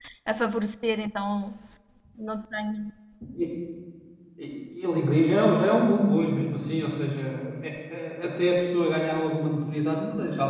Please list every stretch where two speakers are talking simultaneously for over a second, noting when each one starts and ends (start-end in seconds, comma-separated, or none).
none